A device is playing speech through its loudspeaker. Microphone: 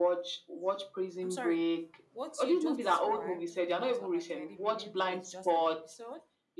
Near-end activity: present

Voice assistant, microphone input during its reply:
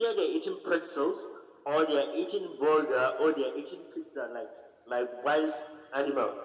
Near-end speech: none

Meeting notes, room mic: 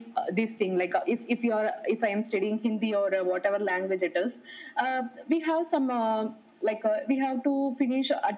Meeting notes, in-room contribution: none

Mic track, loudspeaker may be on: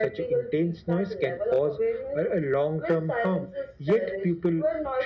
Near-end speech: none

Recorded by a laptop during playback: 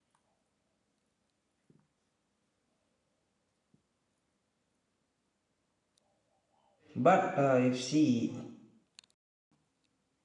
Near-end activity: present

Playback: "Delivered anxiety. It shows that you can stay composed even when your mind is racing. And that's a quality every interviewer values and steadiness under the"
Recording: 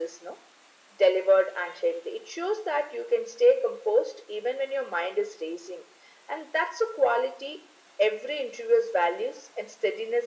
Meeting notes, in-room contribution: none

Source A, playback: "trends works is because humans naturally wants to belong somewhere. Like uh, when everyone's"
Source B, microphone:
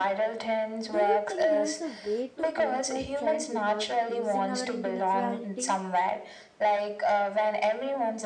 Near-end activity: present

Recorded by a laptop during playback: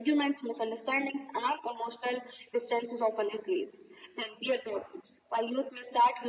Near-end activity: none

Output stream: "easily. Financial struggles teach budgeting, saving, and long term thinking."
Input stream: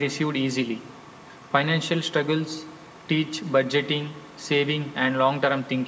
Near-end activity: none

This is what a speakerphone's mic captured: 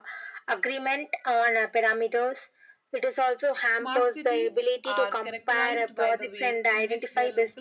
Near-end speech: present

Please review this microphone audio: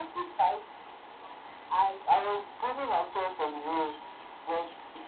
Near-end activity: none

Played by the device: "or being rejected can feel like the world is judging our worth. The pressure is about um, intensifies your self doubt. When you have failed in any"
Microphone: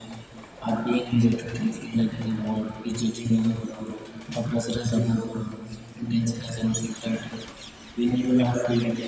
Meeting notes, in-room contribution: none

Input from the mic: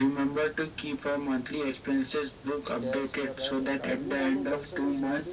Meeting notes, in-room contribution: present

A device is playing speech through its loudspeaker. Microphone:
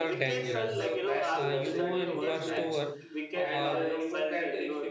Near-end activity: present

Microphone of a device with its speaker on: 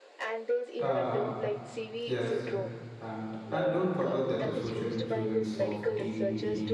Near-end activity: present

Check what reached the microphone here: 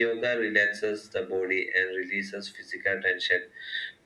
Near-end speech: none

